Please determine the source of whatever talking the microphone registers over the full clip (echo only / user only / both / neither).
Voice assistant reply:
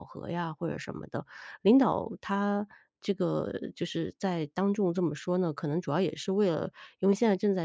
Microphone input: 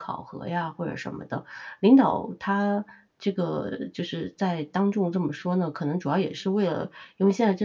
echo only